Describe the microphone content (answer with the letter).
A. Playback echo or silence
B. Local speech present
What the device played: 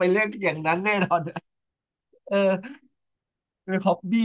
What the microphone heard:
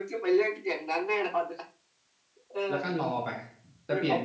B